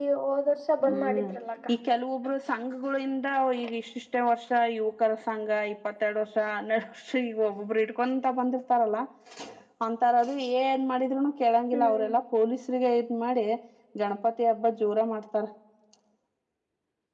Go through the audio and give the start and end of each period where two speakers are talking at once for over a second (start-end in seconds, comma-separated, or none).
none